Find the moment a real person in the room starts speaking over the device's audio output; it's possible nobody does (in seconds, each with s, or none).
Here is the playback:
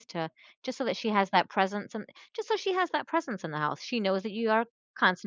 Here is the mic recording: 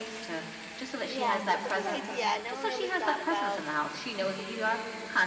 1.1 s